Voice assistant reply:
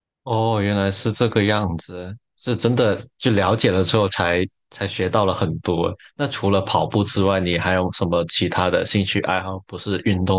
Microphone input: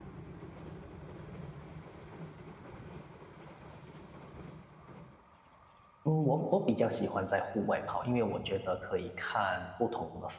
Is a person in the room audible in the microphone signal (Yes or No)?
Yes